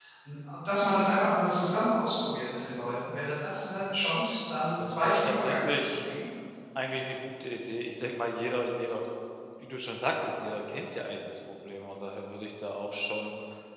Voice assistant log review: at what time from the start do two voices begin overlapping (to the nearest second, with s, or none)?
5 s